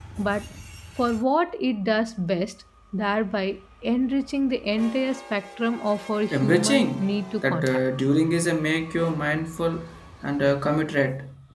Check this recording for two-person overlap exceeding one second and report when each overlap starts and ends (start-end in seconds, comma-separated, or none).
6.3-7.8